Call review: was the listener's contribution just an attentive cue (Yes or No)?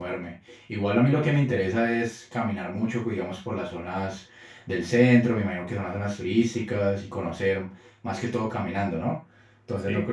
Yes